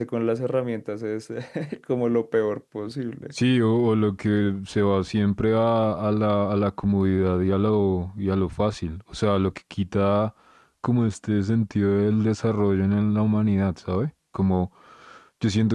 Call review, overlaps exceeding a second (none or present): none